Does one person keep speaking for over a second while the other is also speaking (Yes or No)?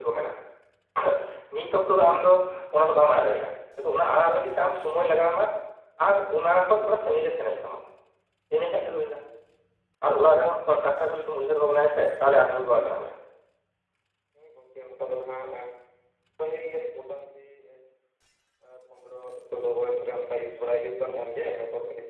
No